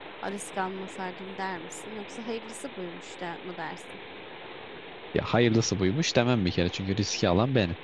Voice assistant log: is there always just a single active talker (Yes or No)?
Yes